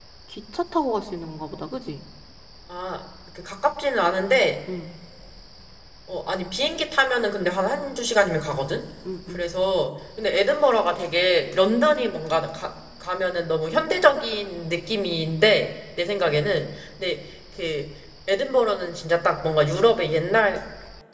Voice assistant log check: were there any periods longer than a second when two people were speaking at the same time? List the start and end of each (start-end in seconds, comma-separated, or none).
none